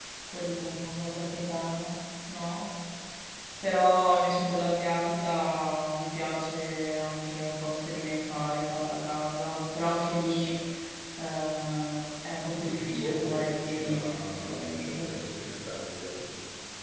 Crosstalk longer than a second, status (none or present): present